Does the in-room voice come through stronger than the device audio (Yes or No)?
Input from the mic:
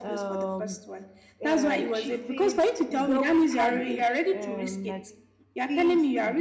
No